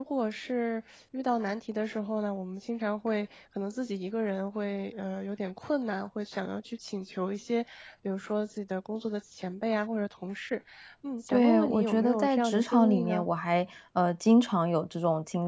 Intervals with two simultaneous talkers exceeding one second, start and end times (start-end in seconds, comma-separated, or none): 11.3-13.2